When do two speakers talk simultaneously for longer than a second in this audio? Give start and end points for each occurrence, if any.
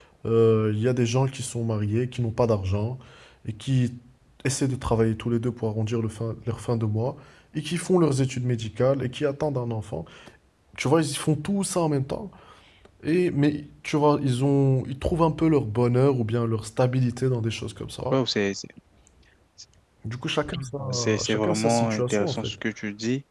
20.9-22.5

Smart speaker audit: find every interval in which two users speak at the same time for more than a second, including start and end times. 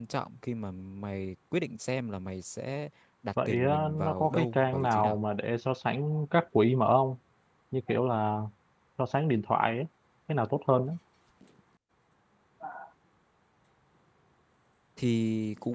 3.5-5.2

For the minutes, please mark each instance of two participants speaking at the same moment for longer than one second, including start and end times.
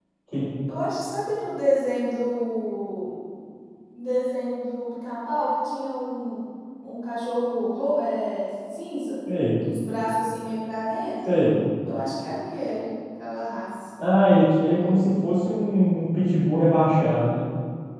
none

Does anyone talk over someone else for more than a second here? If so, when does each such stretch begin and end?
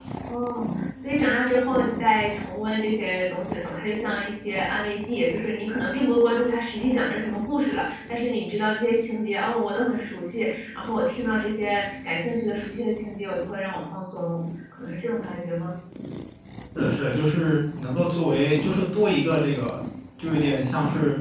none

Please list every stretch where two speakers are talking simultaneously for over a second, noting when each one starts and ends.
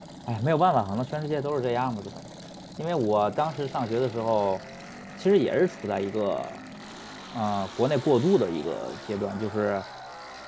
none

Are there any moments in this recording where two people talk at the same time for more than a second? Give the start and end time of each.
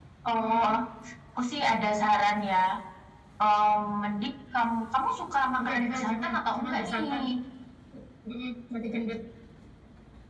5.6-7.0

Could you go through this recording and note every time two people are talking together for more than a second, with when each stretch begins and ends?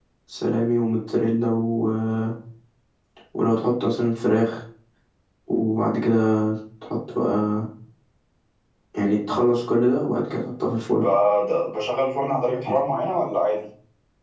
none

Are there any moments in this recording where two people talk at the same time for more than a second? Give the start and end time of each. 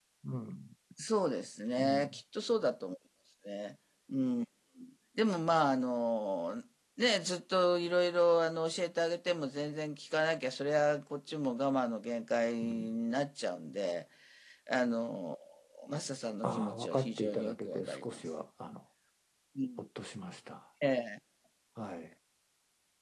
16.4-18.2

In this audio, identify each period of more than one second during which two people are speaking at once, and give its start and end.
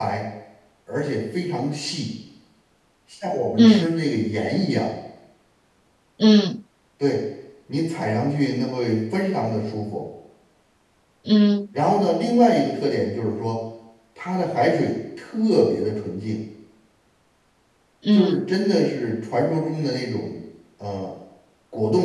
none

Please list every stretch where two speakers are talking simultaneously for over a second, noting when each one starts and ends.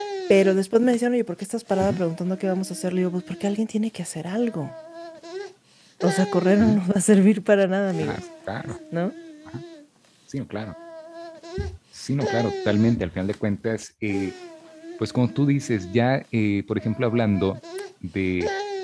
none

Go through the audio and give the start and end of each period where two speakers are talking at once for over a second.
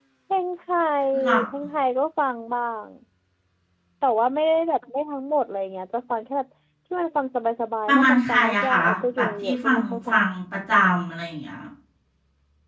7.9-10.2

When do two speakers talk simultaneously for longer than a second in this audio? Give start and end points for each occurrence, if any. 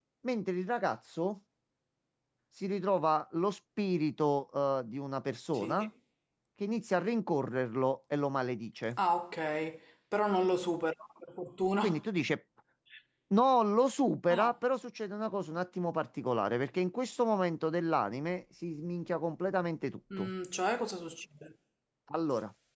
none

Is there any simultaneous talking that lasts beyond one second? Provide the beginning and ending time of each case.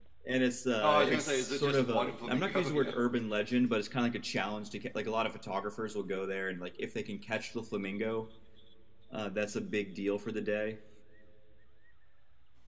0.8-2.9

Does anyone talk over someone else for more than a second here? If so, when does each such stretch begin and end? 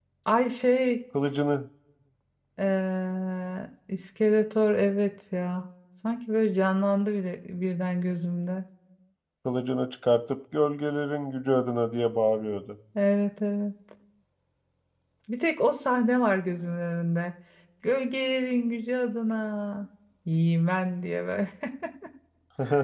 none

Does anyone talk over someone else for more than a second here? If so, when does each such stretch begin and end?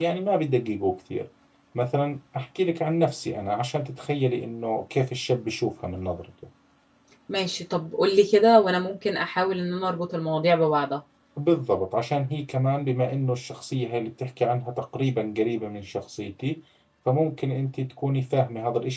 none

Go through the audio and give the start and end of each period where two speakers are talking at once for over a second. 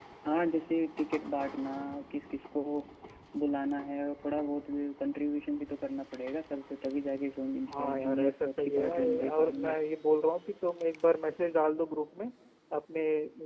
7.7-9.8

